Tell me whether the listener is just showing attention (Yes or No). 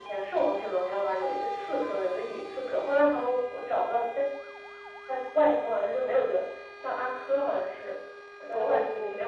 No